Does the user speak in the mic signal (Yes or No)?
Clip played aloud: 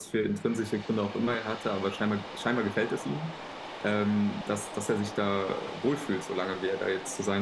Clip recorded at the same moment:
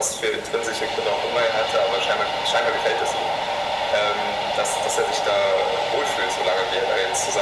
No